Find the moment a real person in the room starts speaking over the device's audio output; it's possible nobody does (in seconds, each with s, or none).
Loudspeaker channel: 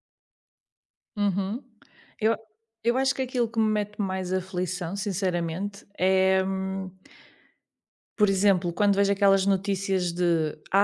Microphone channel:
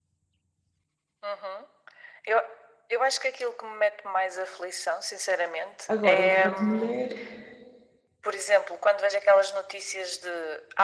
5.9 s